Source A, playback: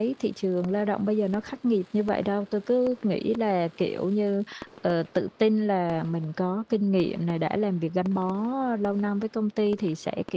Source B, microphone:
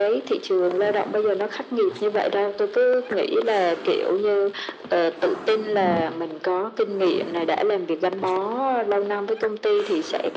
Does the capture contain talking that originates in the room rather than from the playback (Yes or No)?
No